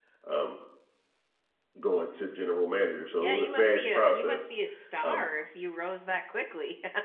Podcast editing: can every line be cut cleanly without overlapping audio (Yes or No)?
No